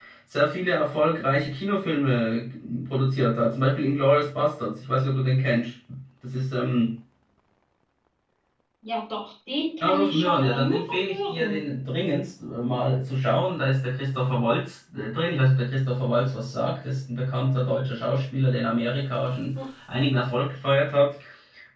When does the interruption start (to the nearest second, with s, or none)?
10 s